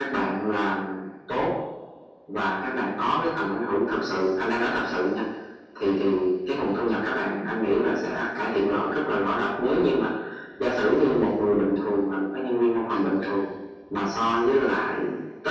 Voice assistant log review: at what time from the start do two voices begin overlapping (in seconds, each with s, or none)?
none